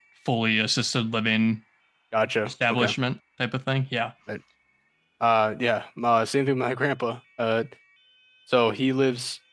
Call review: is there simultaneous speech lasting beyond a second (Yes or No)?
No